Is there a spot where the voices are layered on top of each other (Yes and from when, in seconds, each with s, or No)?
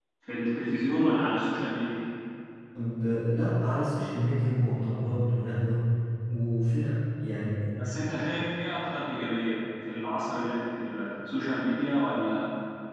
No